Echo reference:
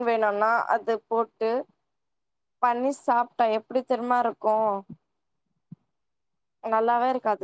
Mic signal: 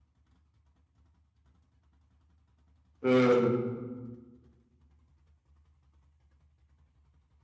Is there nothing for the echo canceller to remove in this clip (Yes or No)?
Yes